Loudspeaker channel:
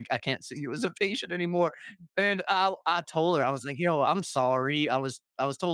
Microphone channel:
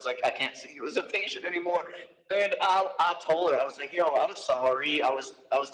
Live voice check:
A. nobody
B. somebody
A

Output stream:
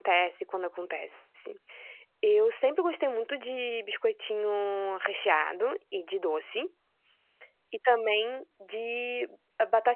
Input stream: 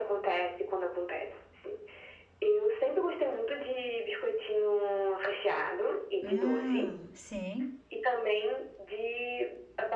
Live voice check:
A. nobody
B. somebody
B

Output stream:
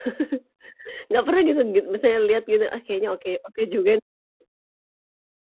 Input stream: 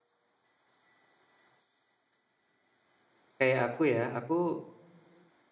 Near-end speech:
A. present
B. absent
A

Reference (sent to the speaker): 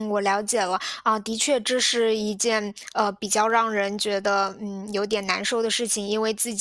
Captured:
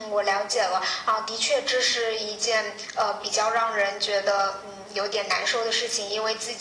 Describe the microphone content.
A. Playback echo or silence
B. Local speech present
A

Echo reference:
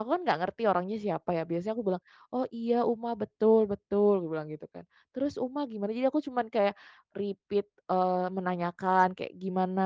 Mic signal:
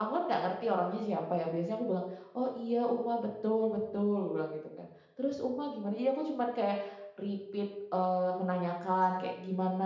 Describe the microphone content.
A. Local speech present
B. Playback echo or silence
B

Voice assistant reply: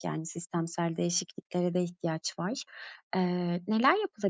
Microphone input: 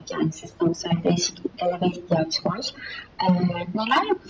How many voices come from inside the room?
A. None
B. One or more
A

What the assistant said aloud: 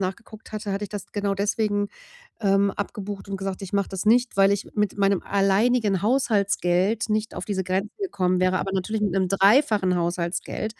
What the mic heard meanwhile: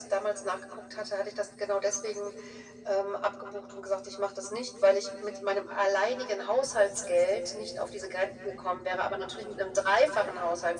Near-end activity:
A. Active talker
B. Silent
B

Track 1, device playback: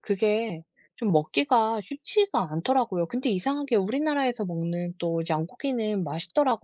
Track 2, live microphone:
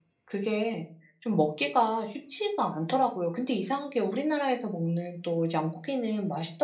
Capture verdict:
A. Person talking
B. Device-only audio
B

